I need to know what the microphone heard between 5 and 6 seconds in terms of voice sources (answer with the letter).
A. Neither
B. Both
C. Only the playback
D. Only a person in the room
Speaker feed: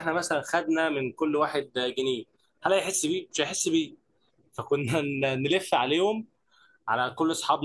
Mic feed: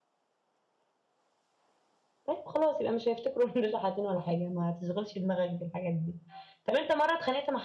D